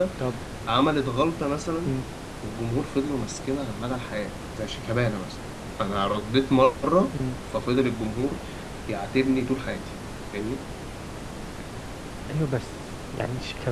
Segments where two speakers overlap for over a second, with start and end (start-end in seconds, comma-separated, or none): none